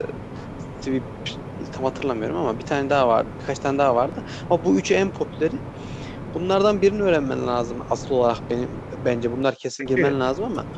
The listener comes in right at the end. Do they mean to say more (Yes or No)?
No